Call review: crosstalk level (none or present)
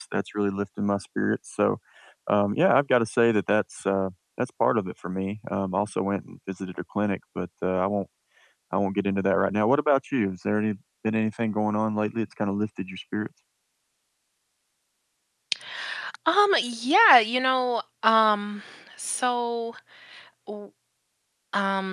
none